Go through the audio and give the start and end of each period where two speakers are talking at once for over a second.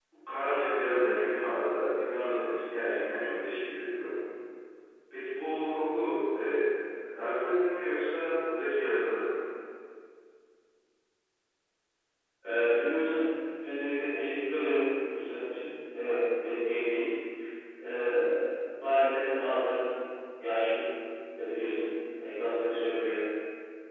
none

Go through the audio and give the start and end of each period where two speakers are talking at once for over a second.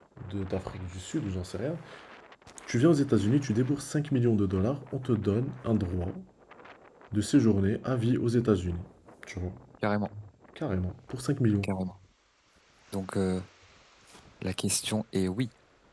none

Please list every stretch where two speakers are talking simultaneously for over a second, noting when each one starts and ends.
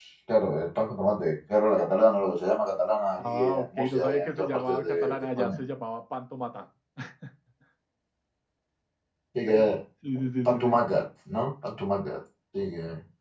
3.2-5.6

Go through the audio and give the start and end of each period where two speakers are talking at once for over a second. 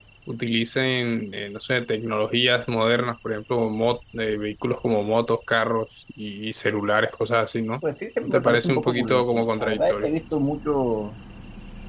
8.2-10.1

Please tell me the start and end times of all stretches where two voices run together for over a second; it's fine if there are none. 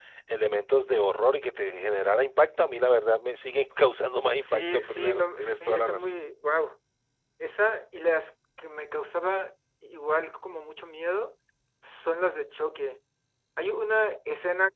4.4-6.0

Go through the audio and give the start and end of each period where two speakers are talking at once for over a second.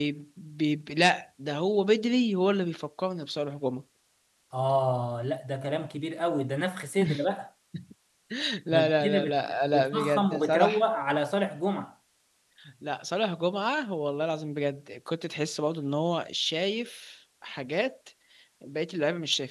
8.7-10.8

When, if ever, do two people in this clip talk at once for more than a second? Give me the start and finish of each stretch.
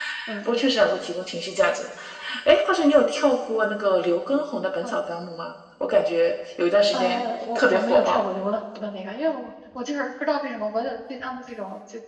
6.9-8.3

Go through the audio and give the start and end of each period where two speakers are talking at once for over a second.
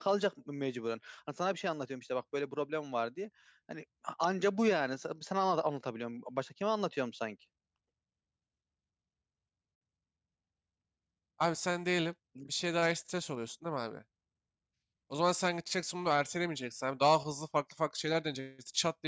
none

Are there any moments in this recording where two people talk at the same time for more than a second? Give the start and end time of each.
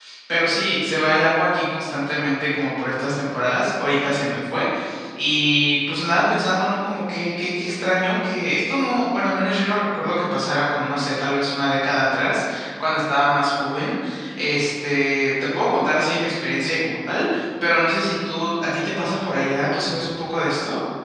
none

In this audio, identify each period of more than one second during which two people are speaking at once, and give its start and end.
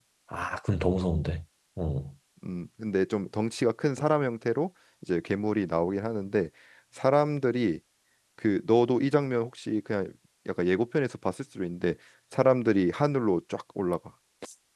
none

